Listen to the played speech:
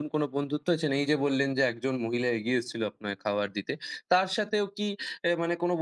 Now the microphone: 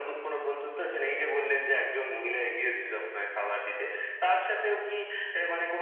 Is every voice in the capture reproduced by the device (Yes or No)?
Yes